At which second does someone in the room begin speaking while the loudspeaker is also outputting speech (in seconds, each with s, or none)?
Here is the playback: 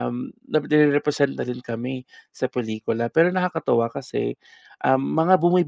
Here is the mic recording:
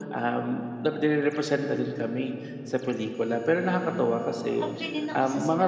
3.6 s